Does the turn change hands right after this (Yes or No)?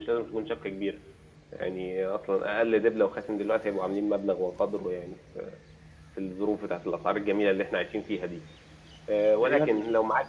No